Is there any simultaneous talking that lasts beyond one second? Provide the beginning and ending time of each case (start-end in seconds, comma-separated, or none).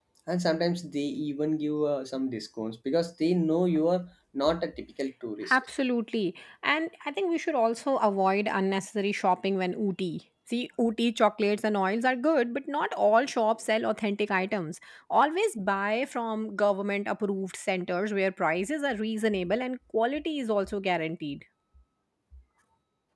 none